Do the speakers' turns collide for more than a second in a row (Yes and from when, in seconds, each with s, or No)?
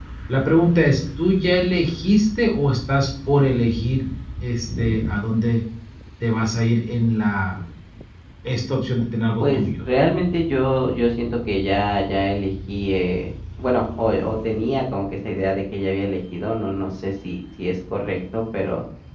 No